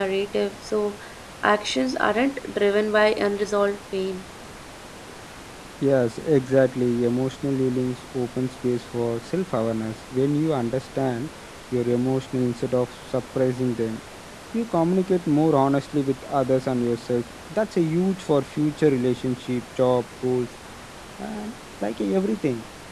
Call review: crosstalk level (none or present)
none